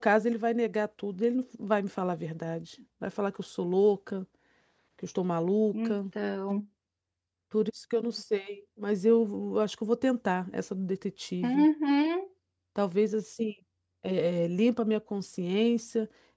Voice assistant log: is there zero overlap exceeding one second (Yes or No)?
Yes